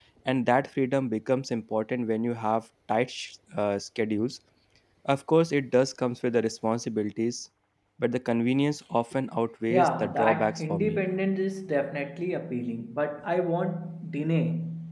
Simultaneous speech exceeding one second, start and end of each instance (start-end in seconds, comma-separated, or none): 9.7-11.0